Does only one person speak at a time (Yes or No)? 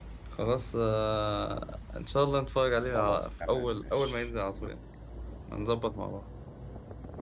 No